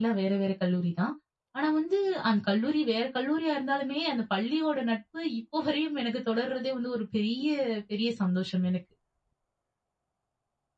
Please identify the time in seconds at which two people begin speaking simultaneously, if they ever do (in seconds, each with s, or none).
none